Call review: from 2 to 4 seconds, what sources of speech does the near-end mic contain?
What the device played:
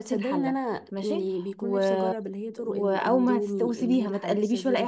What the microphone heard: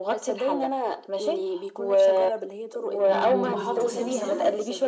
both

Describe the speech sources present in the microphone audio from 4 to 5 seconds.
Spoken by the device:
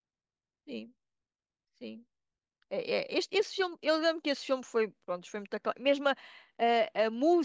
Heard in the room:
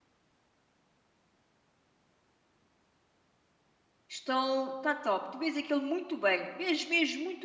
user only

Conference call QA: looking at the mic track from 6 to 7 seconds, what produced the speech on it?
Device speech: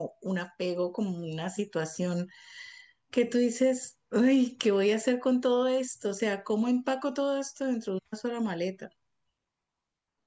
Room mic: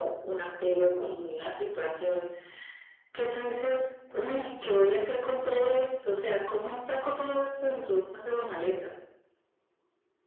echo only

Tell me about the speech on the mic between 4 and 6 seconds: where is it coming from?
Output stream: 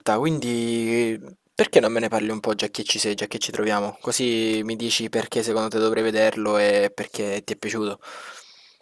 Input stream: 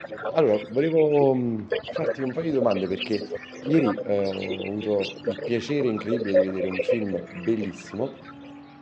both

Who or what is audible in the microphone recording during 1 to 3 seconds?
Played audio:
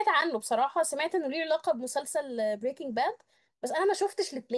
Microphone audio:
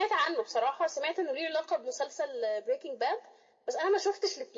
echo only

